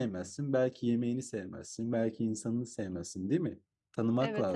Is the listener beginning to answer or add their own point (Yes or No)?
Yes